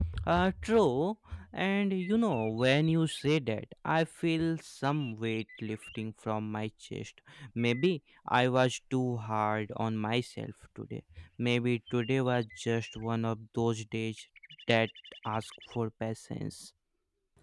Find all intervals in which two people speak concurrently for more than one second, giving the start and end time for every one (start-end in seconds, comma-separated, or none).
none